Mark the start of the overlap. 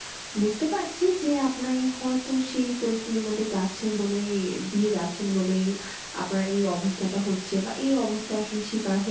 none

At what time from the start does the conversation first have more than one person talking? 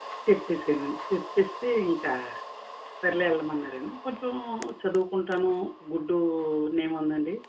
none

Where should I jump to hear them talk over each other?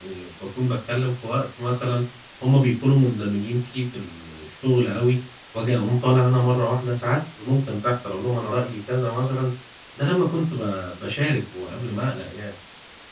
none

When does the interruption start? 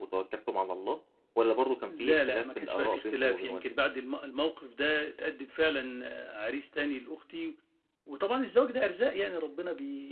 2 s

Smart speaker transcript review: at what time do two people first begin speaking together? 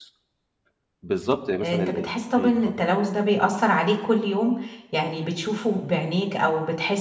2 s

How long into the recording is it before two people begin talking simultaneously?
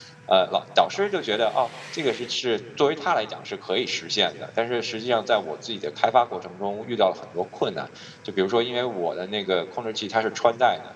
none

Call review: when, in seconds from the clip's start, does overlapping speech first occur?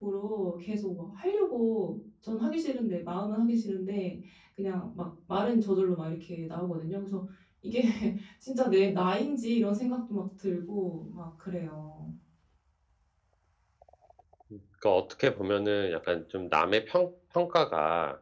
none

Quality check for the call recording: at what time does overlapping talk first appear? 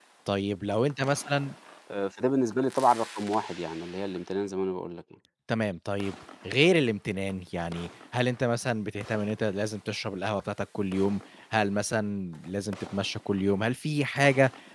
none

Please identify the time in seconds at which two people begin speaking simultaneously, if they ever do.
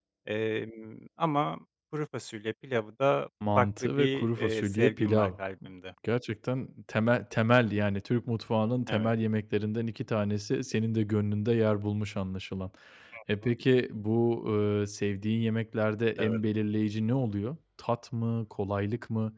4 s

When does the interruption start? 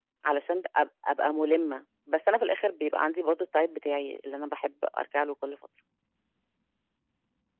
none

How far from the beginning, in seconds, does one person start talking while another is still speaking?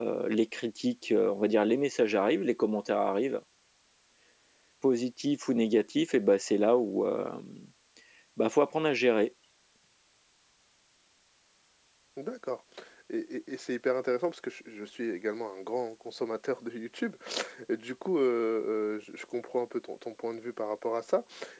none

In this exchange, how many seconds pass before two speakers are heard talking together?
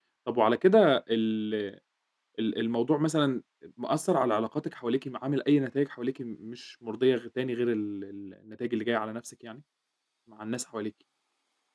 none

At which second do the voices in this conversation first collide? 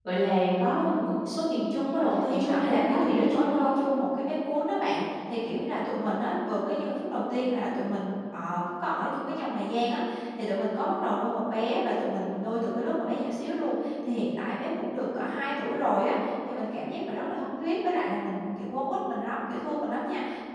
2 s

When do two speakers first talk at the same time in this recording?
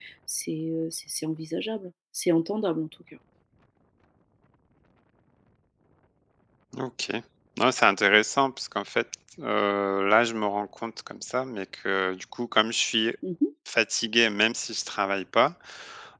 none

